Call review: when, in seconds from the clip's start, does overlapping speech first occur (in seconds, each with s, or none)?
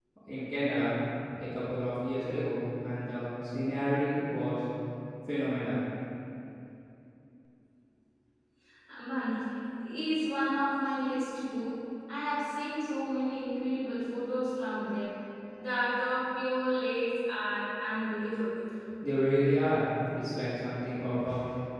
none